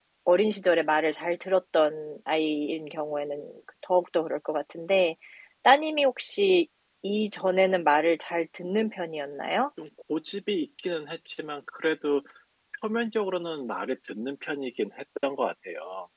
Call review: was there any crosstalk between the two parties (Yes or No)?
No